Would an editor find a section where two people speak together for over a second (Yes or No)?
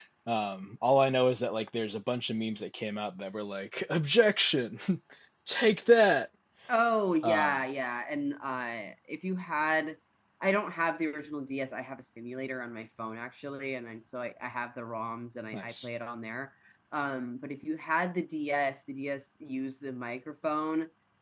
No